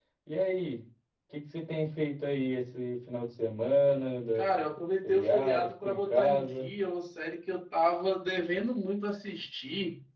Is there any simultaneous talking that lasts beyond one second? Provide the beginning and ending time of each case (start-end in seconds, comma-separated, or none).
5.0-6.7